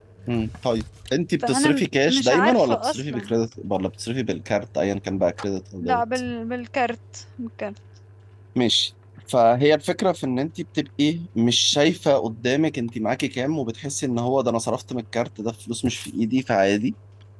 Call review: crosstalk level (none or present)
present